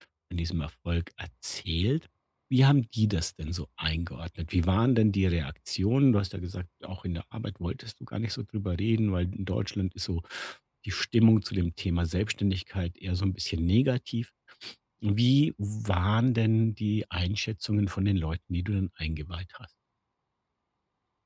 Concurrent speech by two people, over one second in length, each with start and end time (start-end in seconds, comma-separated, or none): none